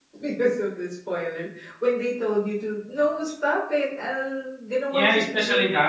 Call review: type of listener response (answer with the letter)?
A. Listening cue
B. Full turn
B